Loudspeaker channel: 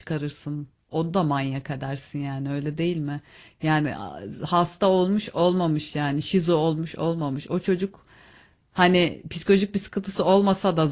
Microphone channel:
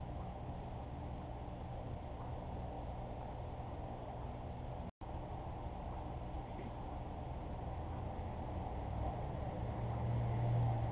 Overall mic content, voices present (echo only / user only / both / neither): neither